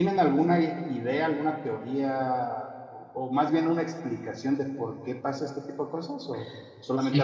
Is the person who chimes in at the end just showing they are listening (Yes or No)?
No